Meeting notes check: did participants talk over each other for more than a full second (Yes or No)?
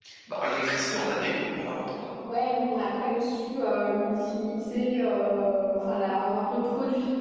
No